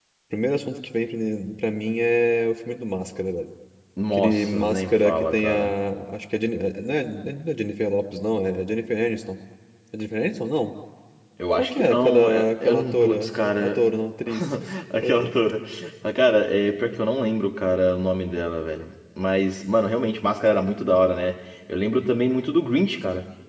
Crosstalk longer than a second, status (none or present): present